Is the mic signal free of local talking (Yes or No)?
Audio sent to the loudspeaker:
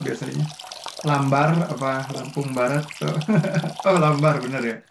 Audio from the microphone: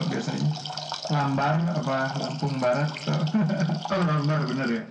Yes